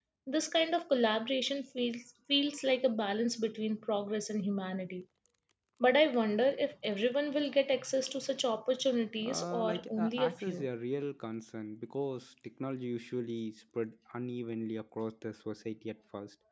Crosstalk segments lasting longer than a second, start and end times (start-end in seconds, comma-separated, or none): 9.2-10.7